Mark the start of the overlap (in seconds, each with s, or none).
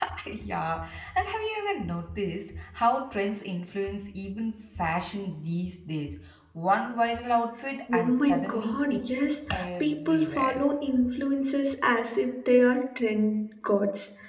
7.9 s